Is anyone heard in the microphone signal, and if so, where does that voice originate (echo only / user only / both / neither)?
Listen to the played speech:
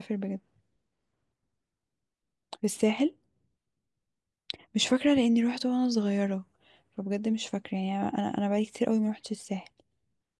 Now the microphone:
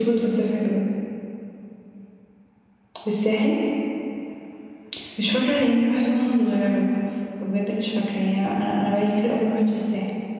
echo only